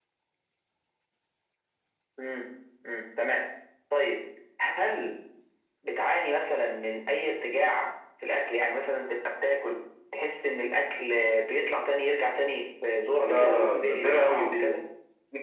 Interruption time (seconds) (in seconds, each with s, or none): 13.2 s